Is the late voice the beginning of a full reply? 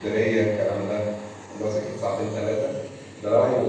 No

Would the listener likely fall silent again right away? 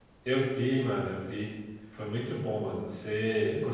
No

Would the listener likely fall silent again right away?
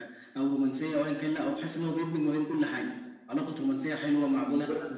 Yes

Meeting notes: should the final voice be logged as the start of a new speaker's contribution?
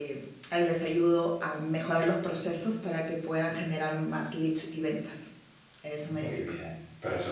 Yes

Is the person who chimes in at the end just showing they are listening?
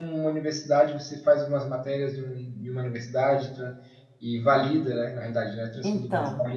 No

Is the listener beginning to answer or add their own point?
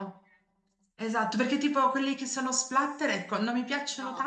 No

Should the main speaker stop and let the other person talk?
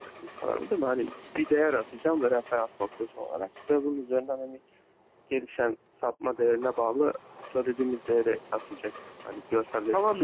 Yes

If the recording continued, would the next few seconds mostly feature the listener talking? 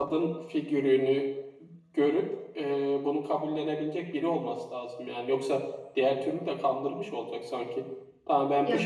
No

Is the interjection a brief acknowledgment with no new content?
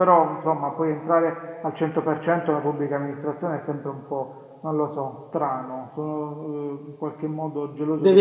No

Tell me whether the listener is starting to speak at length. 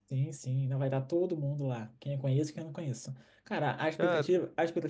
No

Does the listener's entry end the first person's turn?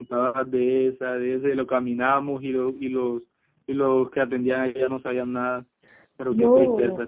Yes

